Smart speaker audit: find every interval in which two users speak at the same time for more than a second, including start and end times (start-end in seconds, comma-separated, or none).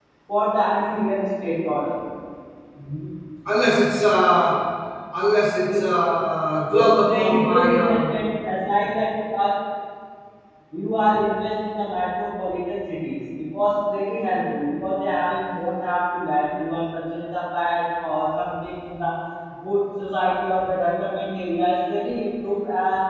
6.7-8.1